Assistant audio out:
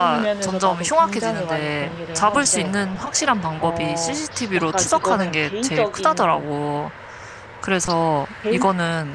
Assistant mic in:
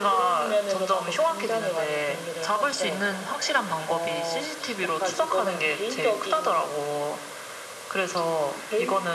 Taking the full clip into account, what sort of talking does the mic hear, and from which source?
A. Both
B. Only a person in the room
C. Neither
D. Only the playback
D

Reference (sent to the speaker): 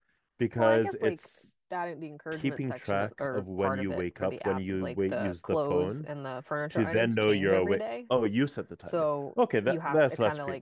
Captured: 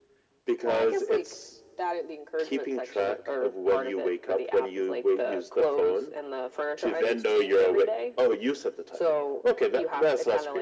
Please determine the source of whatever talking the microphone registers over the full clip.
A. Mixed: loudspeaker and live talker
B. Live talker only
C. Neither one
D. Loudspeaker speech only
D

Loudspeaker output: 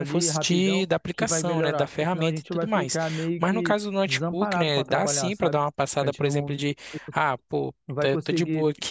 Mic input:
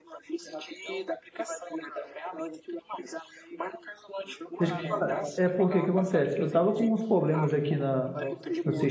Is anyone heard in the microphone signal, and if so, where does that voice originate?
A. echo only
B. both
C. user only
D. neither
B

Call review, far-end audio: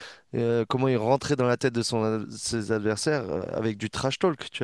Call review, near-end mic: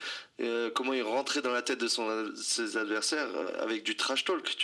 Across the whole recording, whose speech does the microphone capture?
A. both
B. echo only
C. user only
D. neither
B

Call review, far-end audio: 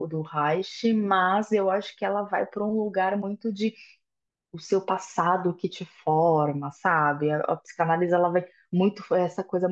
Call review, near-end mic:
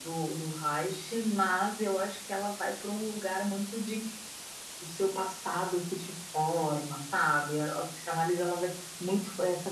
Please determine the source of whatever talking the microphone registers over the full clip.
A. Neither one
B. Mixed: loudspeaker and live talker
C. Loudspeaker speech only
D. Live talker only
C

